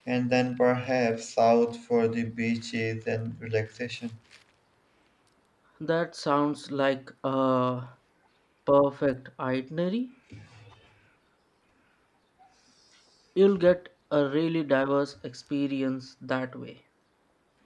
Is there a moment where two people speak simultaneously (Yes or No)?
No